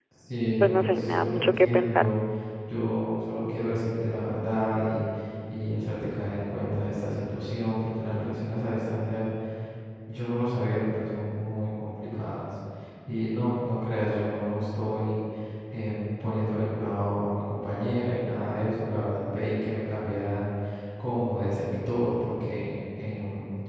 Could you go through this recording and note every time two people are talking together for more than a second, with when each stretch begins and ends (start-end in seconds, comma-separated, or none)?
0.6-2.1